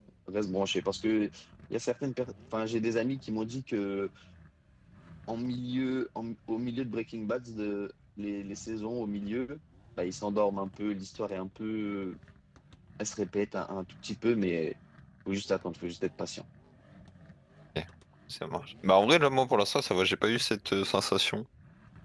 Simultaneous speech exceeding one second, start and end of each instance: none

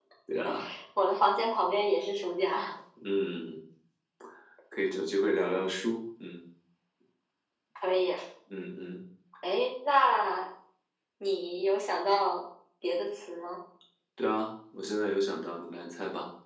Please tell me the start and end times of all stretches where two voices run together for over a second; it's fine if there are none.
none

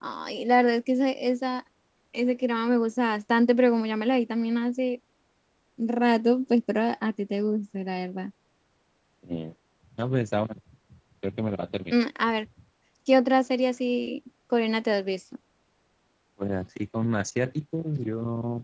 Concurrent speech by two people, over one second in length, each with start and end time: none

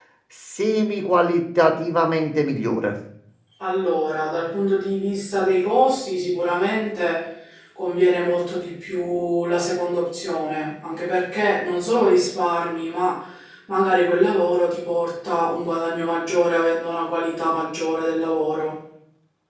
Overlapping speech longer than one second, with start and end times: none

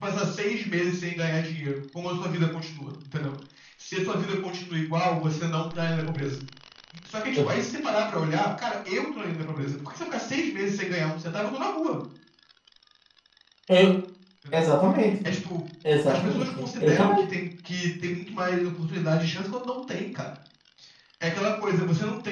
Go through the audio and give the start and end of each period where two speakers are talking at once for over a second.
16.1-17.3

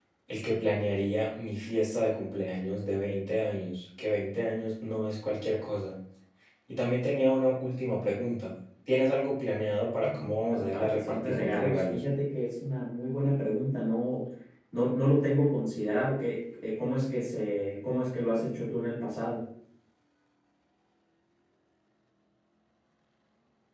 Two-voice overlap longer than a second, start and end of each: 10.5-12.0

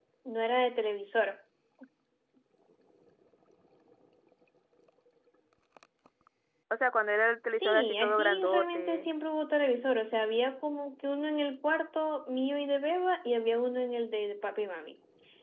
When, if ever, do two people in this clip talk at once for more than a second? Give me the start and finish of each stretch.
7.5-9.1

